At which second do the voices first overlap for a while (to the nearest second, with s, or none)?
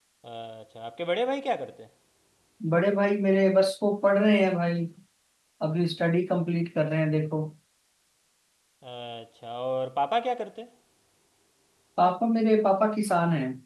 none